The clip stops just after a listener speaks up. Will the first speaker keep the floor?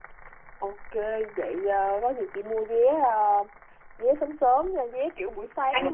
Yes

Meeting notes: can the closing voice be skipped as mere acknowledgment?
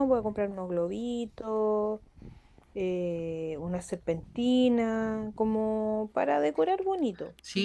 No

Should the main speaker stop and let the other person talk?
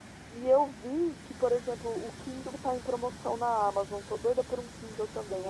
Yes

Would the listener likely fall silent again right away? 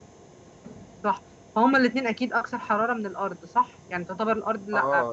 No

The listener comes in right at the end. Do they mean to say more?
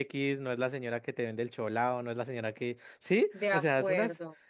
No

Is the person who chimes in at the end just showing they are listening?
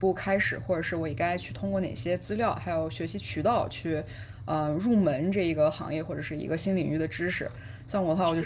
Yes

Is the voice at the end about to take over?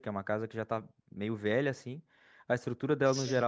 No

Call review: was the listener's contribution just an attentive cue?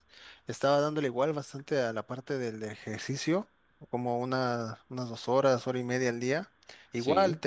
Yes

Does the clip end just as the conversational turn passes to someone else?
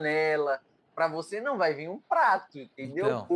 No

